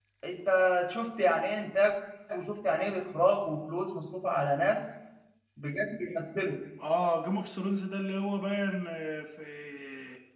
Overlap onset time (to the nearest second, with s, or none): none